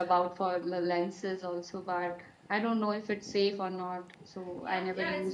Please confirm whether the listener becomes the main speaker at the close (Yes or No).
Yes